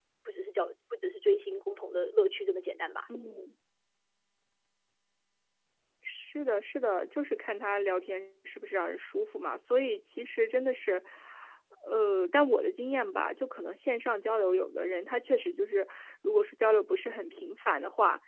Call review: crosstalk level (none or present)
none